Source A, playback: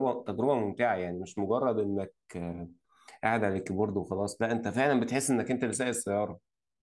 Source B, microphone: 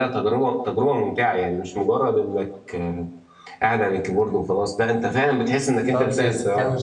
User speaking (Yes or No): Yes